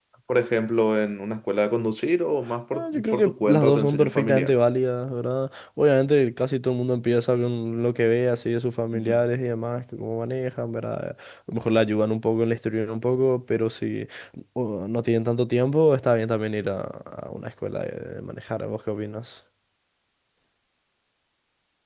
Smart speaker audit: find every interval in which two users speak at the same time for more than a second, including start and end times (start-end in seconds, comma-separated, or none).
2.7-4.5